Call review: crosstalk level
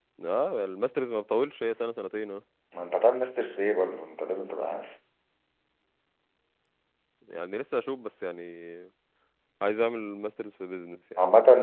none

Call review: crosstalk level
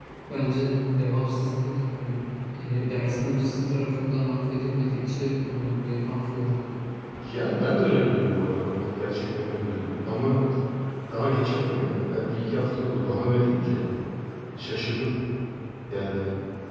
none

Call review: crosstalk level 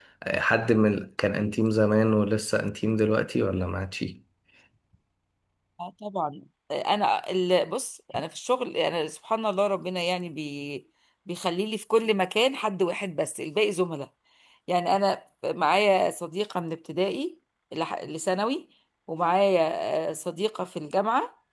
none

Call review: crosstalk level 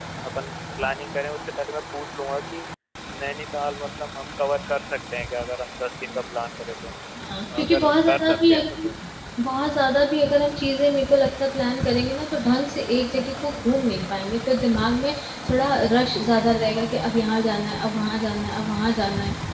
present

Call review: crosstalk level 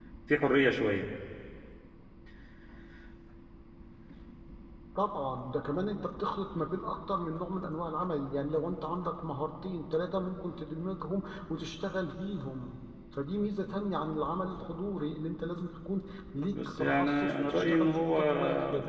present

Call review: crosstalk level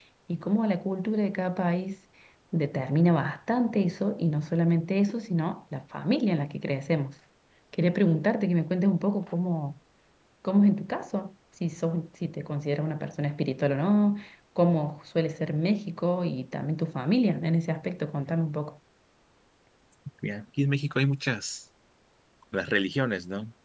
none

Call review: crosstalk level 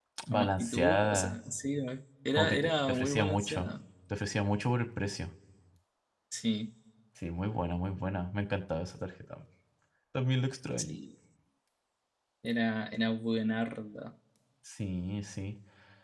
present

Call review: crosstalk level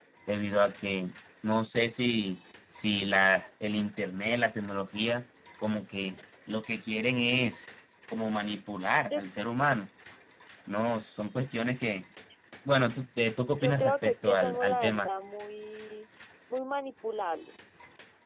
present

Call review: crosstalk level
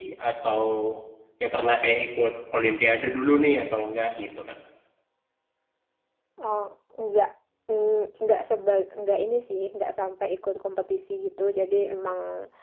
none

